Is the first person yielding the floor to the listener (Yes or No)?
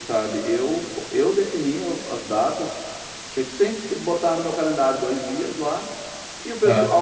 No